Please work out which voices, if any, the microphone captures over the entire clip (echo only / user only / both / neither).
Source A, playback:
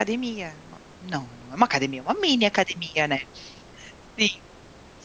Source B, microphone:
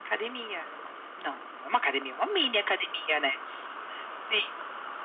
echo only